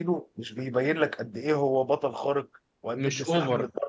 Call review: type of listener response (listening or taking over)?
listening